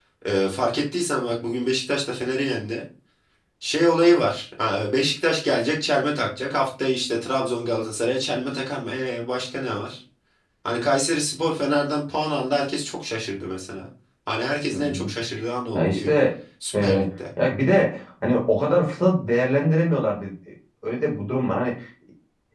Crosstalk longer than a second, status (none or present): none